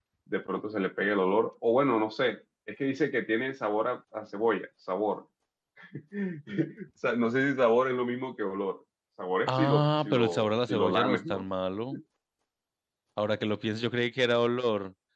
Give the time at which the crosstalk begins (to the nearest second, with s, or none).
9 s